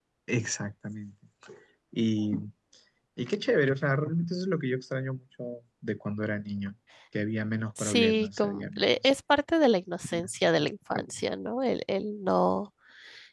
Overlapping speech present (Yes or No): Yes